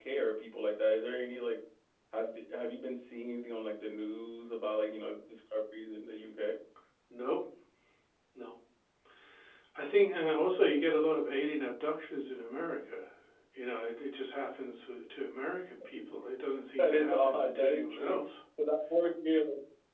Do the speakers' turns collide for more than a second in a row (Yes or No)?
Yes